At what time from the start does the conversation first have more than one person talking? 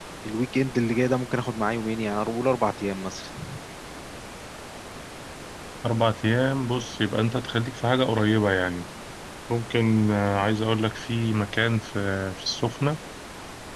none

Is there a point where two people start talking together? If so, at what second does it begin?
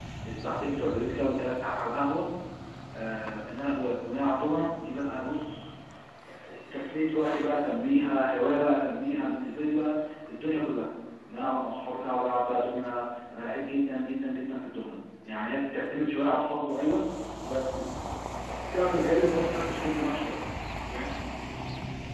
none

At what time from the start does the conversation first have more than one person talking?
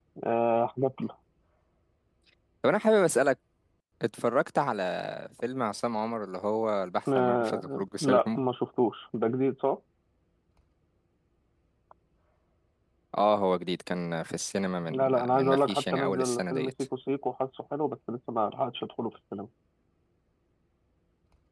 7.2 s

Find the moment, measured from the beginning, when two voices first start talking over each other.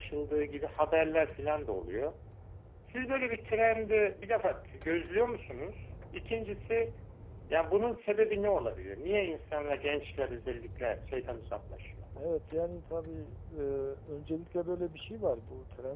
none

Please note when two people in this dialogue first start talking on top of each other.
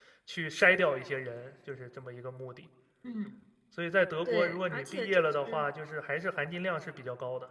4.3 s

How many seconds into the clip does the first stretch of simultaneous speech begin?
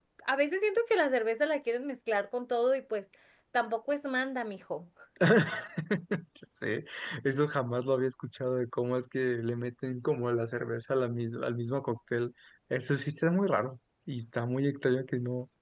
none

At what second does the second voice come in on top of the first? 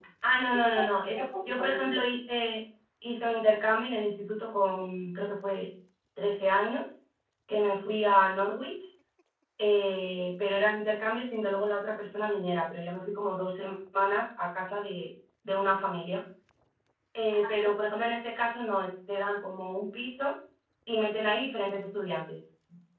0.5 s

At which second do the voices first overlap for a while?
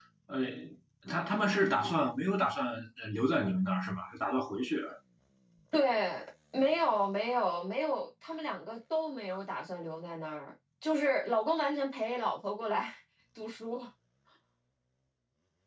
none

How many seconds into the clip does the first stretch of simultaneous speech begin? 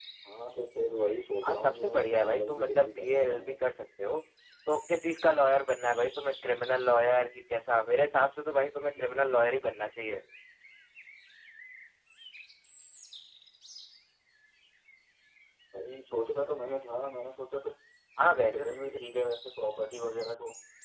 1.4 s

